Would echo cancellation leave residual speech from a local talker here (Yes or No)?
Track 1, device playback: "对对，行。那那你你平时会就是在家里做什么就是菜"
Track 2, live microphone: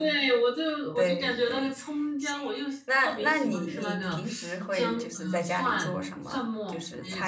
Yes